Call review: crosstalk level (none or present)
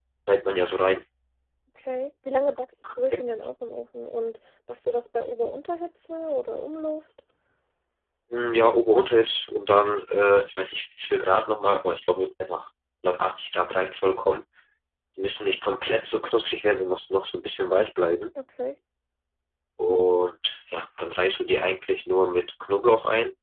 none